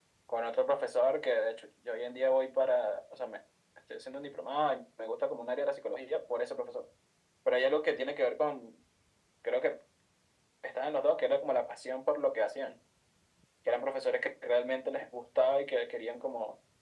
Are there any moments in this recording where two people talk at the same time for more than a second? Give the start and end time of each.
none

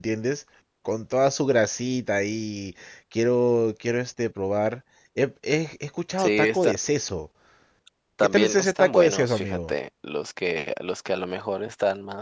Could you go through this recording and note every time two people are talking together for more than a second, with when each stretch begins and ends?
8.2-9.7

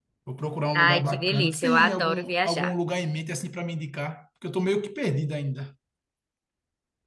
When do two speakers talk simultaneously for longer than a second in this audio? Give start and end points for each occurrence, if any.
0.8-2.7

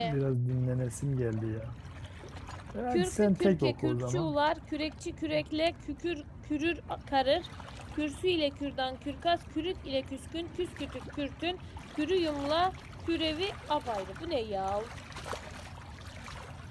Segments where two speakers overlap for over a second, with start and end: 2.9-4.3

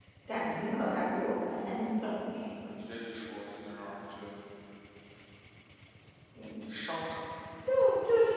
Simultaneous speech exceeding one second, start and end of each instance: none

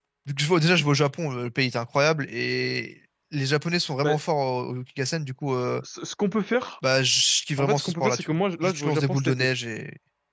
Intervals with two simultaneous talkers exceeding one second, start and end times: 7.6-9.5

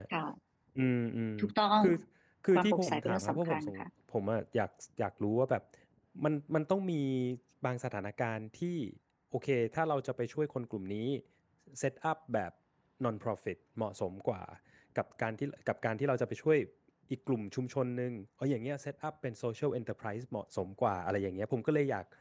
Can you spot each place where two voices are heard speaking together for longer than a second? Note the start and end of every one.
2.5-3.9

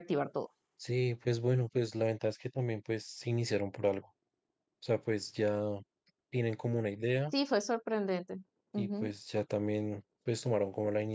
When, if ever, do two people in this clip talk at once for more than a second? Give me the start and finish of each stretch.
none

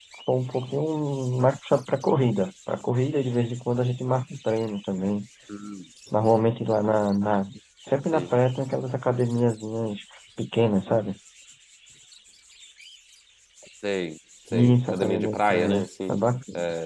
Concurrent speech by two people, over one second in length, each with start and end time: 14.5-16.2

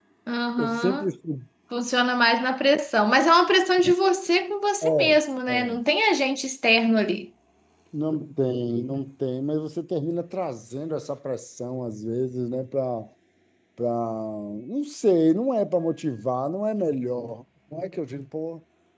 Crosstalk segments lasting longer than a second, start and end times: none

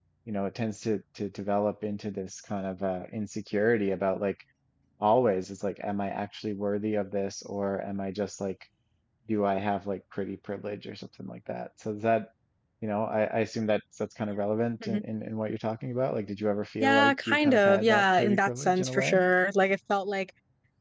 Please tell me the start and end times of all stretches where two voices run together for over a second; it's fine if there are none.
16.8-19.2

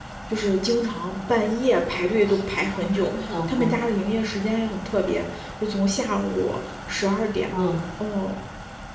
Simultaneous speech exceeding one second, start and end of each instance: none

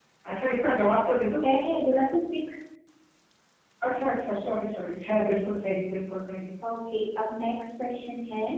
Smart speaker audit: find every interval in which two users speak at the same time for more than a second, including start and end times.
none

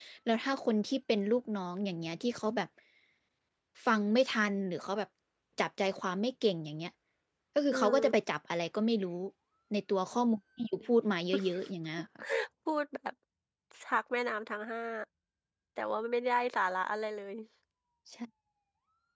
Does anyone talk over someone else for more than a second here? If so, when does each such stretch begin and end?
none

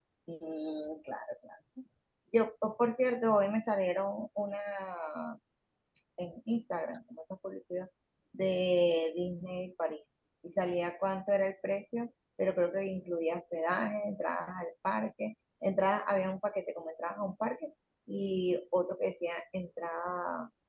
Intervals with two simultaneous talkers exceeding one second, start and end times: none

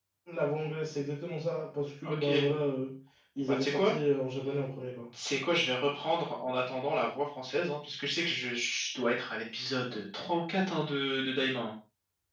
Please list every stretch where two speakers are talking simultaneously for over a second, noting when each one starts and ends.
none

